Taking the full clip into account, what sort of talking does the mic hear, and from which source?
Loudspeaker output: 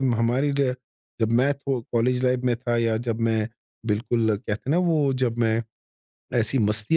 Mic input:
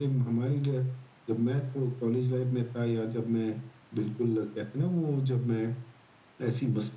echo only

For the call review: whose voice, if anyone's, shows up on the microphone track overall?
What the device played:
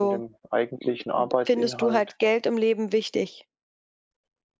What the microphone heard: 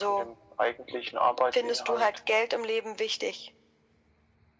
echo only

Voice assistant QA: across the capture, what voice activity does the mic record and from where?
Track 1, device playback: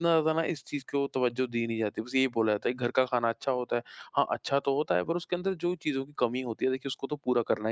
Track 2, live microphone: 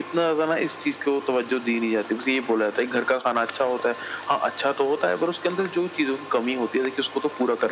echo only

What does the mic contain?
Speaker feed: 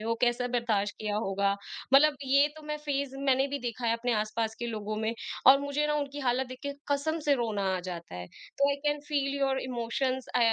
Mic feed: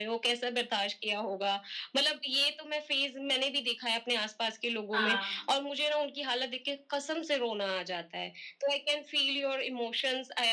both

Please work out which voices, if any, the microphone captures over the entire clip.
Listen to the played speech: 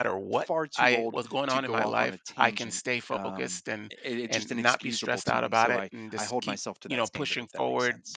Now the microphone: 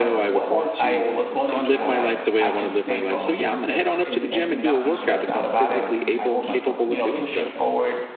both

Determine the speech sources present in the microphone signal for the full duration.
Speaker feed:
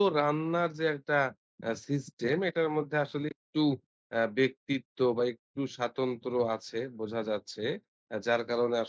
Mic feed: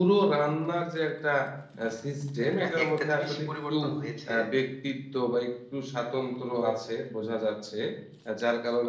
both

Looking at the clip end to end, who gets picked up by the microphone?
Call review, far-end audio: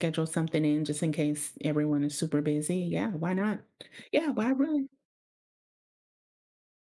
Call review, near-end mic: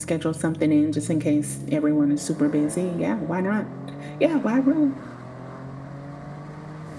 echo only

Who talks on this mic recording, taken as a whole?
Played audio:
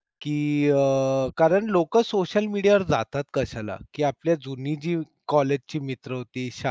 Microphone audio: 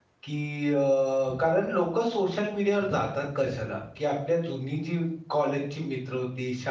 echo only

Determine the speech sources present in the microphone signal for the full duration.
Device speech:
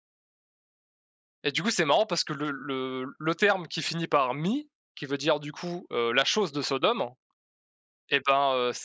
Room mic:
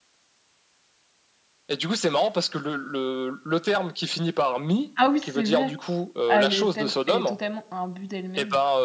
both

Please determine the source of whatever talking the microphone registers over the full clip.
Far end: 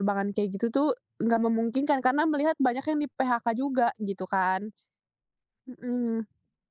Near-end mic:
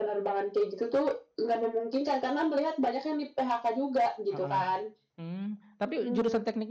both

